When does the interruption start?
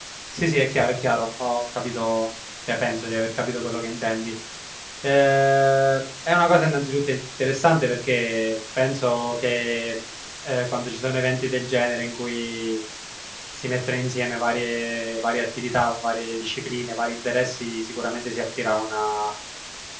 none

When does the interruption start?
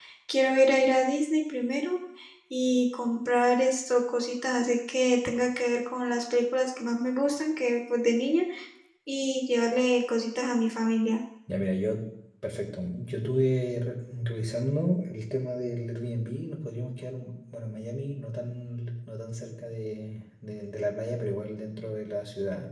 none

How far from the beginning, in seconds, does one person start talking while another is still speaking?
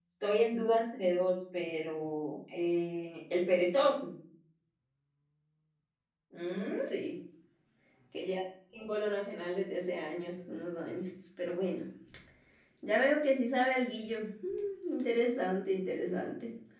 none

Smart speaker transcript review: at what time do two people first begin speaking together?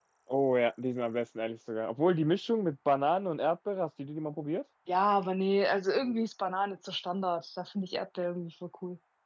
none

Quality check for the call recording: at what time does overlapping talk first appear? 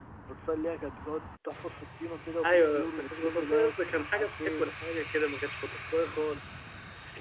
2.4 s

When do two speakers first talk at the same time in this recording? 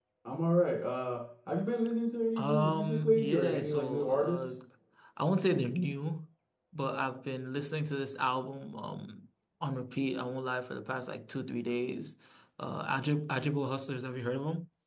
2.4 s

